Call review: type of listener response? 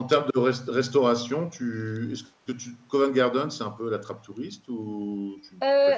taking over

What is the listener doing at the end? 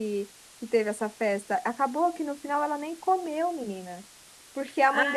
listening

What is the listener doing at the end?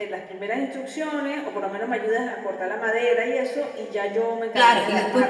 taking over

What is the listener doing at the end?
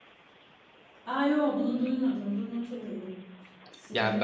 taking over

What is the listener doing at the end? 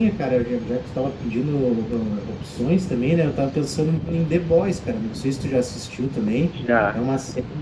listening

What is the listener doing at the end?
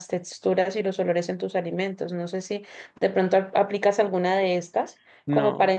listening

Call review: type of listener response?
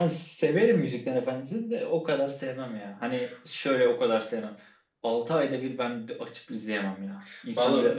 taking over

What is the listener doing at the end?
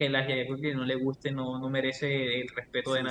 taking over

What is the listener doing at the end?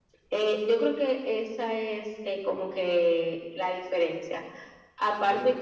listening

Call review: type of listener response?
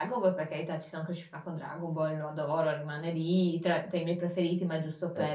taking over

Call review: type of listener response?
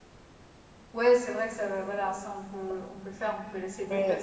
taking over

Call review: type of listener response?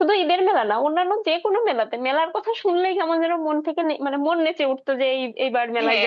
taking over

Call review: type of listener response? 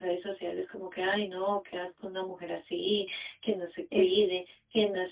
listening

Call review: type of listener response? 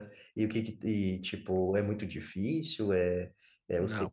taking over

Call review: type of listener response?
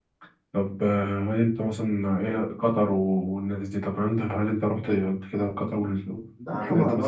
taking over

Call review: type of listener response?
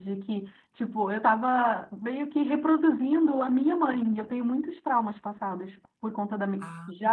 listening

